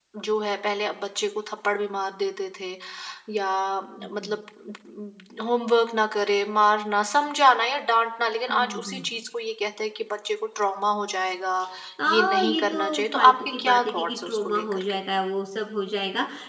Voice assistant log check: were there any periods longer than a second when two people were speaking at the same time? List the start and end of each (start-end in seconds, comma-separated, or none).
12.1-15.0